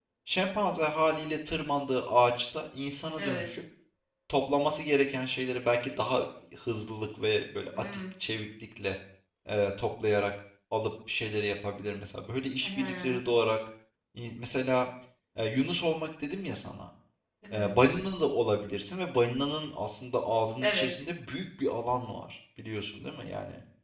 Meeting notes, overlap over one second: none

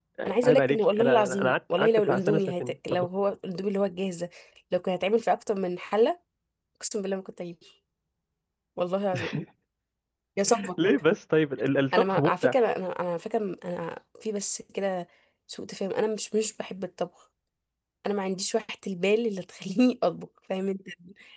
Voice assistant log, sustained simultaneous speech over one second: present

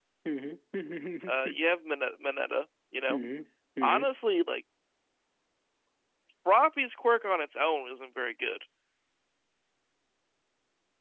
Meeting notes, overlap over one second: none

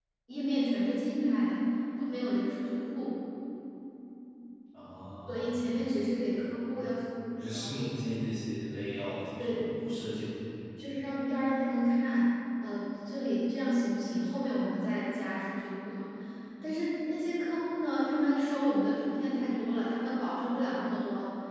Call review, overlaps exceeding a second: none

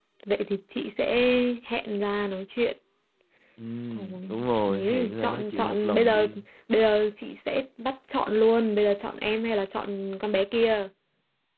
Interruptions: present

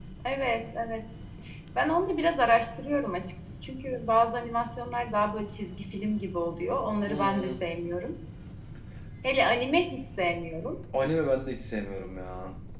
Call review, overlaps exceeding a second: none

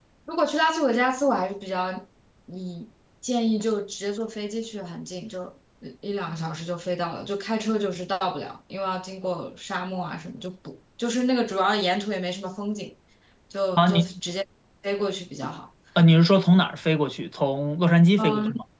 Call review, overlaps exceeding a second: none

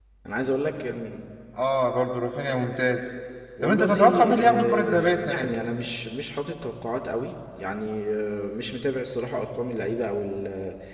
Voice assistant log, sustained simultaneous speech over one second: present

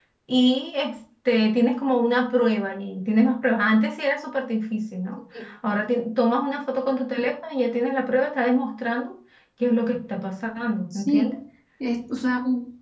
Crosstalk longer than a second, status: none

